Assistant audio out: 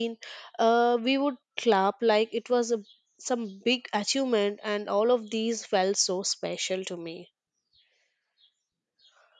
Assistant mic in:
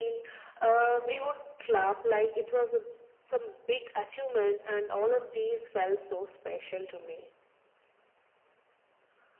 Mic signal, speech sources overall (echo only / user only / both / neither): echo only